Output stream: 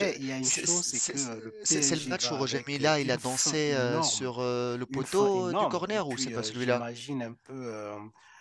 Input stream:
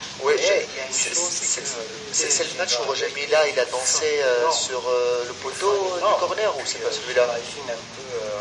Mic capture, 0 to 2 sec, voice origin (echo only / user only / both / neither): echo only